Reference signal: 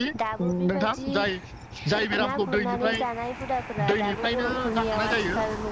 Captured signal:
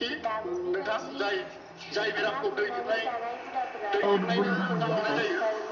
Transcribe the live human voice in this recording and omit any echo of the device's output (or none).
औ नंगौ नोंथां नंगौ औ